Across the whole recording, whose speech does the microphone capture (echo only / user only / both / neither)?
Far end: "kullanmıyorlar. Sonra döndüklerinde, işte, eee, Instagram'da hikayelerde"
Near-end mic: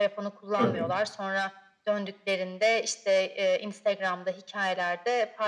both